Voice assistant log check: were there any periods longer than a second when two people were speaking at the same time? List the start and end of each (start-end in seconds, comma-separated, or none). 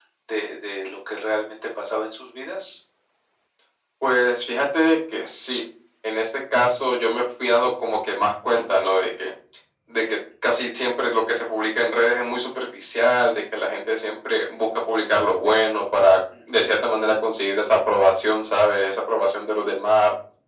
none